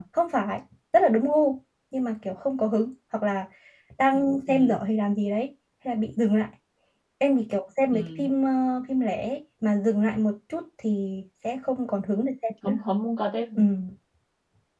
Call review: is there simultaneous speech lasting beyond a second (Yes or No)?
No